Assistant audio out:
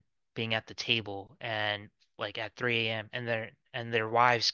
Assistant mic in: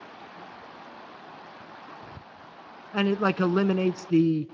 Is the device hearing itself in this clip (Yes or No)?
No